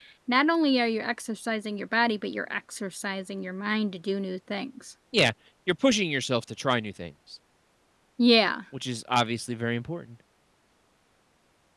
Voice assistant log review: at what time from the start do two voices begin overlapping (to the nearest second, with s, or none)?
none